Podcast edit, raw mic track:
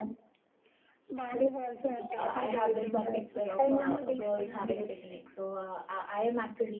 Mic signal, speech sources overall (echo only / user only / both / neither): both